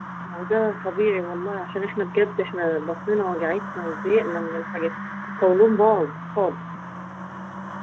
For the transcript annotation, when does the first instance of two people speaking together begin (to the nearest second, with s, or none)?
none